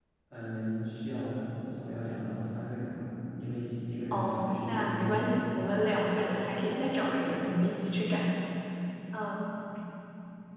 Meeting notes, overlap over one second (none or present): present